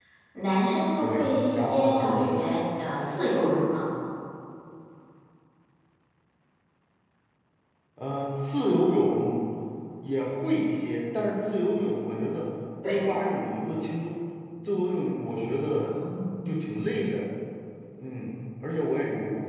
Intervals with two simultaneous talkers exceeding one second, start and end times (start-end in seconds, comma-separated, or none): 1.0-2.3